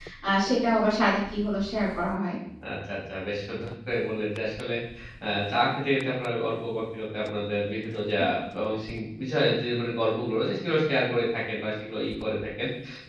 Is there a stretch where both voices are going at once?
No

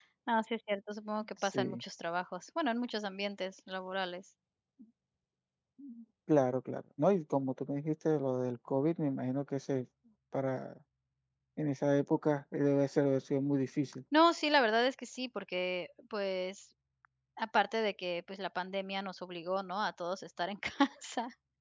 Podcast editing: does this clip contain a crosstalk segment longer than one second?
No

